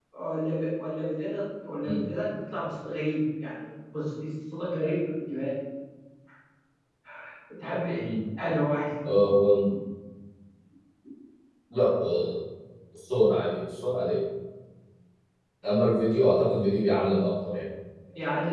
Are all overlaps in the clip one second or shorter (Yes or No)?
Yes